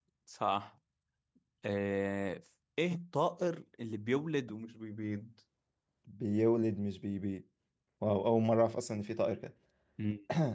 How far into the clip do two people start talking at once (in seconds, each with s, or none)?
none